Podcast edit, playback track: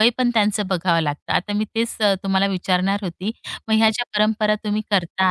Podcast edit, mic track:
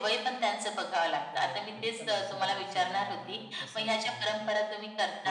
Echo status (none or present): present